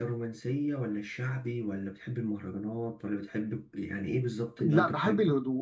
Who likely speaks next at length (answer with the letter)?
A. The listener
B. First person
A